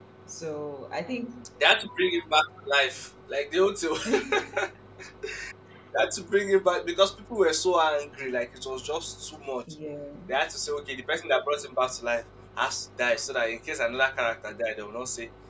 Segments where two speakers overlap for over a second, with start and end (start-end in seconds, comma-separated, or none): none